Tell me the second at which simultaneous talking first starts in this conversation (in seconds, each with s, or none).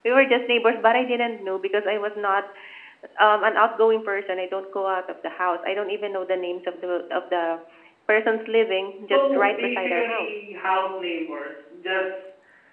9.0 s